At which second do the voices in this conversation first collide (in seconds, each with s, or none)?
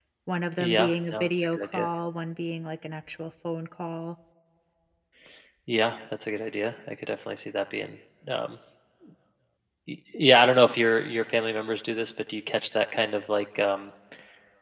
0.6 s